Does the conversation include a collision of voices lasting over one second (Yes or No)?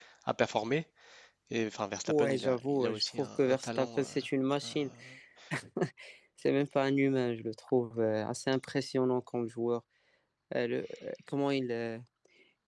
Yes